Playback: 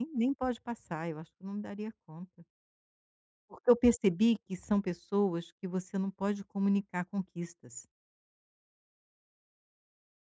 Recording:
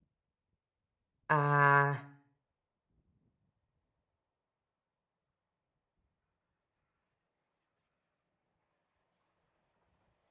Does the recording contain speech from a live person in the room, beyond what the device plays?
Yes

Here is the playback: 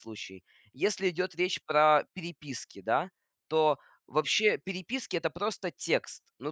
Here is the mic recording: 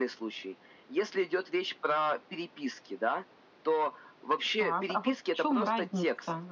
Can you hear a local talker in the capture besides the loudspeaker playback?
Yes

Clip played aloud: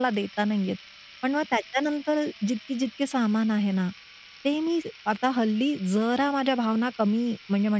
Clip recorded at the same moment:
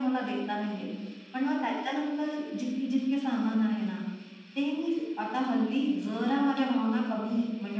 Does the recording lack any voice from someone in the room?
Yes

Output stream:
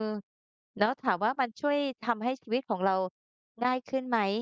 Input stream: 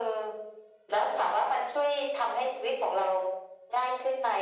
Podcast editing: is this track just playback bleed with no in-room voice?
Yes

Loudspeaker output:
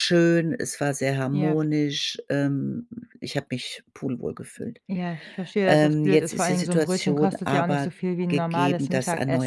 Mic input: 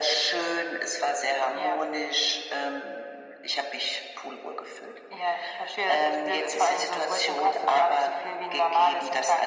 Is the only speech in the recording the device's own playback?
Yes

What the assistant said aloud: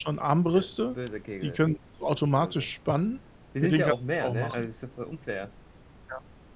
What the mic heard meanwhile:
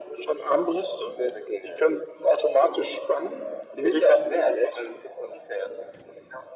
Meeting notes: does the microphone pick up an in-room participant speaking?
No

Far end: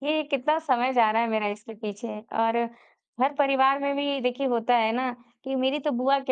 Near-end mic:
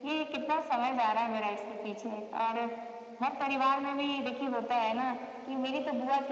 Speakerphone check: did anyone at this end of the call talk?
No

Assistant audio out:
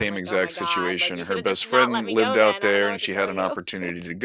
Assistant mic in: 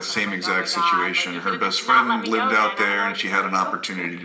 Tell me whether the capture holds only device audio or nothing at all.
Yes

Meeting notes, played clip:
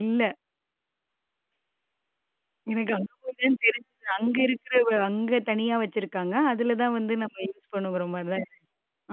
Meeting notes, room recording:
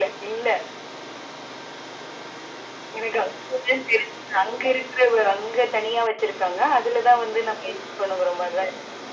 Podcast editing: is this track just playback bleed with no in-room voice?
Yes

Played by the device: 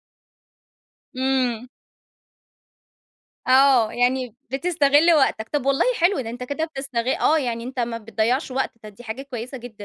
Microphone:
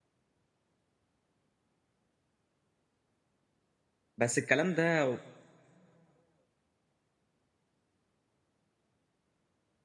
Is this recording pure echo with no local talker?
No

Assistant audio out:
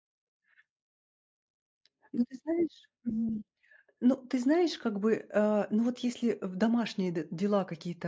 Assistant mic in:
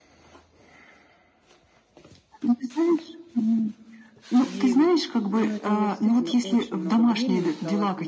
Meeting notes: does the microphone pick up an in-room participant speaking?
Yes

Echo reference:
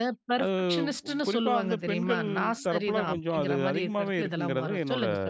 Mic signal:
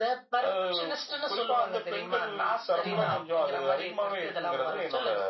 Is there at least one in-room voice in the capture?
Yes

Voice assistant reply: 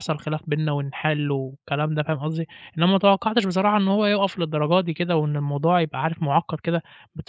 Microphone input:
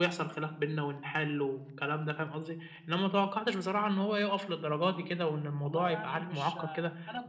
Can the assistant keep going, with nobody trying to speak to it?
No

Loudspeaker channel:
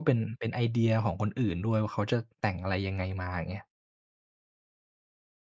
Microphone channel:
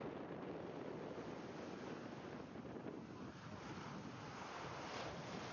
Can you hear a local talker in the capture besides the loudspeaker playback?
No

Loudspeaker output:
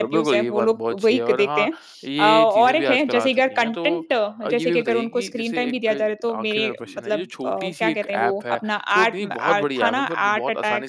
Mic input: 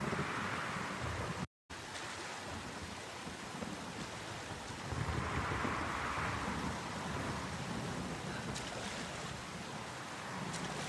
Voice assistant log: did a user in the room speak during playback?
No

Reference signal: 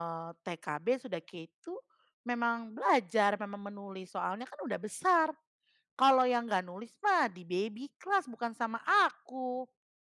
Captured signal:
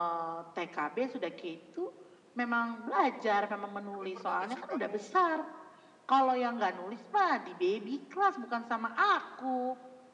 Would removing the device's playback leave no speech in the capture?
No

